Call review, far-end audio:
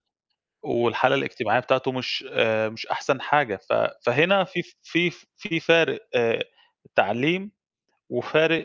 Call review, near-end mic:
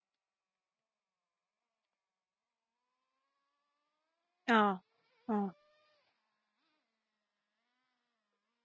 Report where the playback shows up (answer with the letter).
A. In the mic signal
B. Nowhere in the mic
B